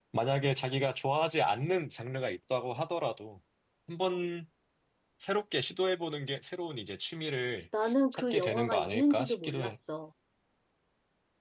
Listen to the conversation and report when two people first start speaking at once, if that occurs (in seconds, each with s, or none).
8.1 s